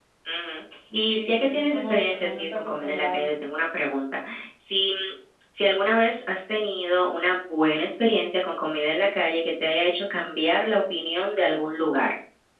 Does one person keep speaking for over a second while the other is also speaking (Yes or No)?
Yes